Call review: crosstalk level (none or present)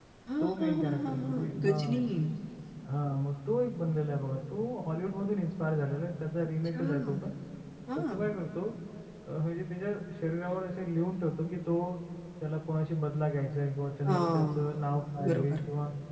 present